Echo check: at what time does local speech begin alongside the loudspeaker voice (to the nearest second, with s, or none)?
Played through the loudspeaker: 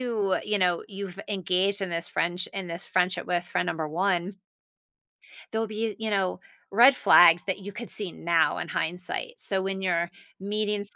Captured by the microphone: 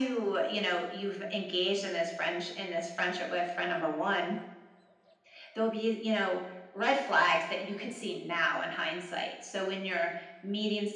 none